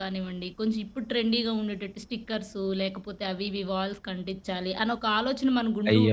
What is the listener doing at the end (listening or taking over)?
taking over